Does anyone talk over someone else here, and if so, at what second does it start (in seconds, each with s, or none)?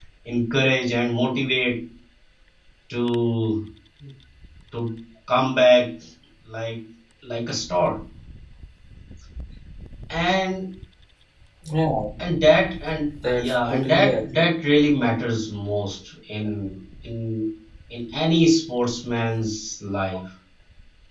13.2 s